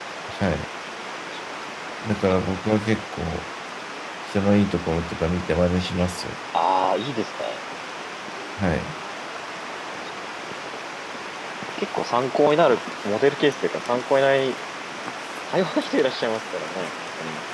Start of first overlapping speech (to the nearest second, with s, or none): none